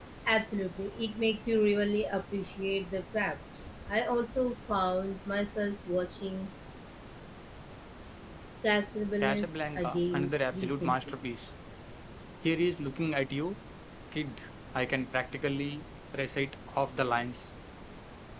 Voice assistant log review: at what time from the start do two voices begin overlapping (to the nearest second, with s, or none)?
9 s